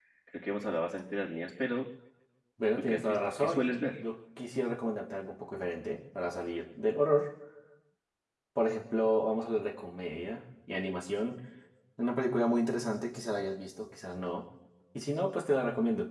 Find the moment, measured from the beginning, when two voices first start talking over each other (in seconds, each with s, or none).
2.8 s